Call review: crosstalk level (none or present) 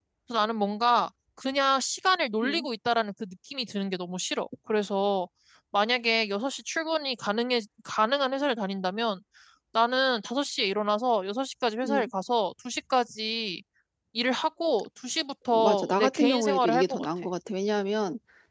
present